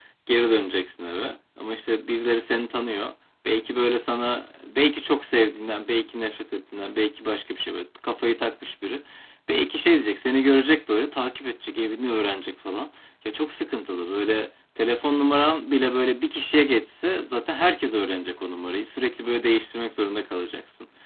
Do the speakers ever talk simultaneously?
No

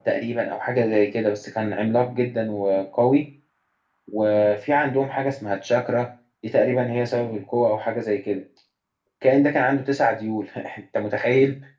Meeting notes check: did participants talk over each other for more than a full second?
No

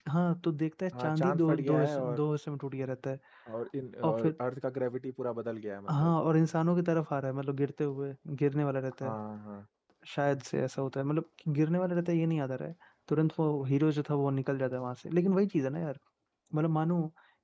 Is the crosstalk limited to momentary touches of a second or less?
No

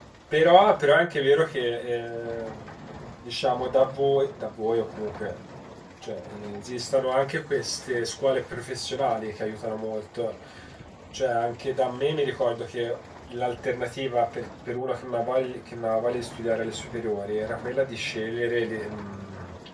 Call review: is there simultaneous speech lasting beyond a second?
No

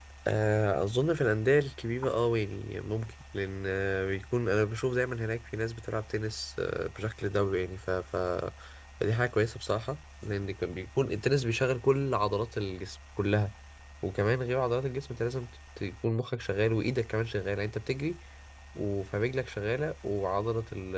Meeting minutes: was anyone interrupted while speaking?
No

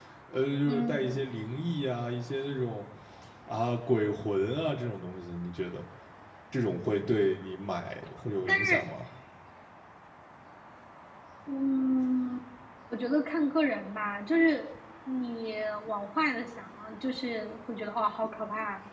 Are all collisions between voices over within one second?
Yes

